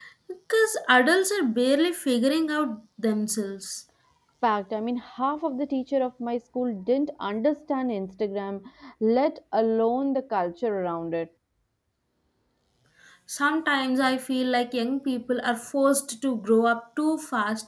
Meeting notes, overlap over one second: none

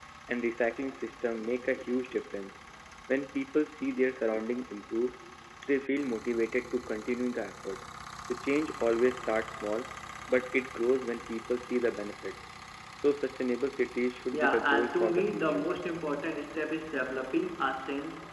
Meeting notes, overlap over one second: present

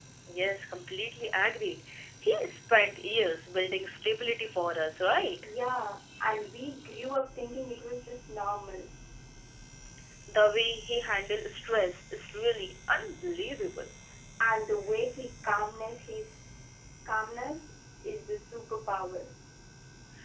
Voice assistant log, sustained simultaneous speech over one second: none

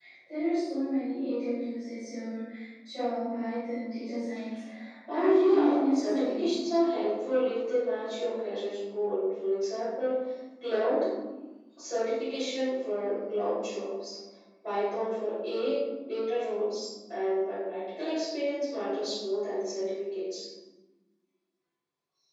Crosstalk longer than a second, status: present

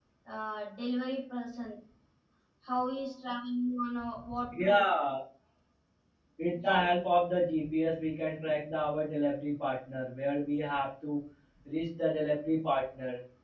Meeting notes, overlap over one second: none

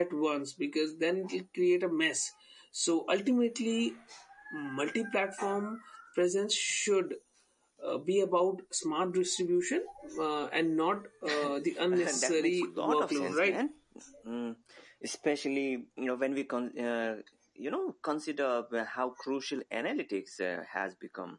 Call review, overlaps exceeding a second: present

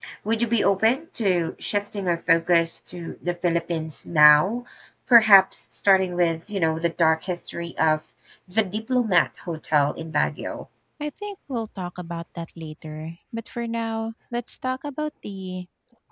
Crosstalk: none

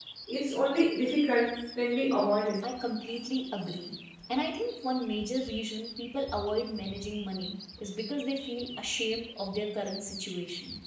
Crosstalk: none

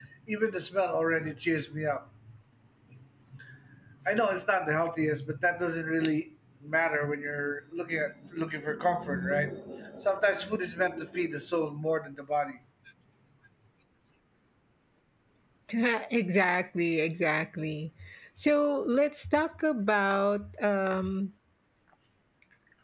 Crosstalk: none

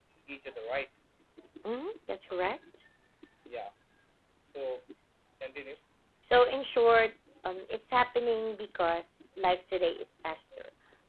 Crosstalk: none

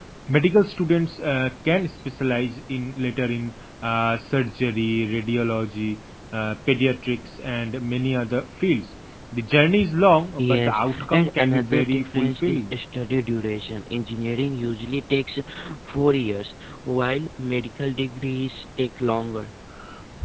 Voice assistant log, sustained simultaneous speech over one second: present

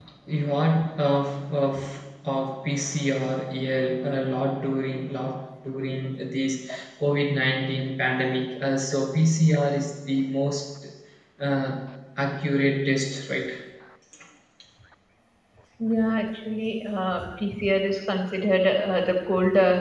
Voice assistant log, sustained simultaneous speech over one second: none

